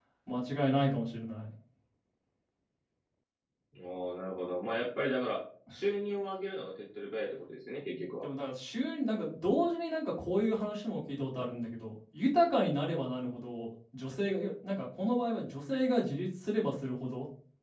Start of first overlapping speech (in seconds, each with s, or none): none